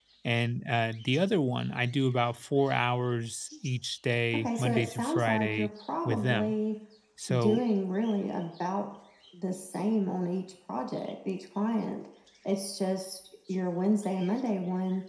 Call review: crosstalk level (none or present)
present